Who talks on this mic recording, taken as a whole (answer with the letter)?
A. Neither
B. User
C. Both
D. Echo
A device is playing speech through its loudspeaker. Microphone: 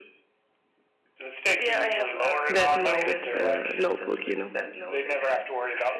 C